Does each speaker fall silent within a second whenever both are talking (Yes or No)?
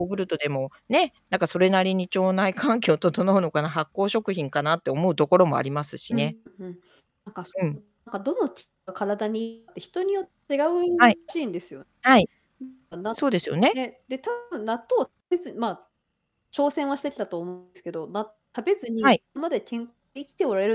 Yes